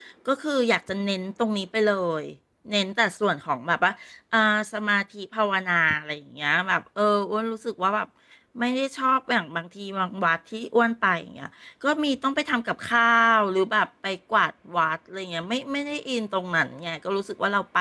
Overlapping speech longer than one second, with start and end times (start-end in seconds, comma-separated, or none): none